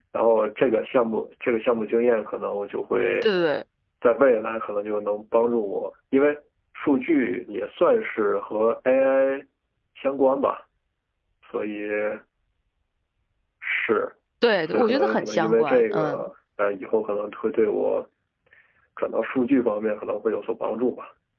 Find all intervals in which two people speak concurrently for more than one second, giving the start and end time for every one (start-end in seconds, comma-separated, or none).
14.7-16.2